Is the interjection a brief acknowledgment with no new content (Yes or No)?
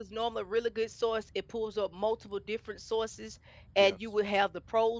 Yes